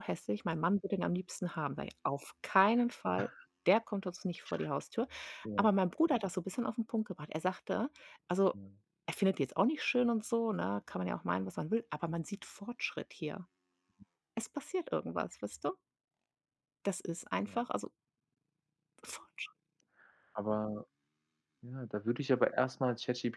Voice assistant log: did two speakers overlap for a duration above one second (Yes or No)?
No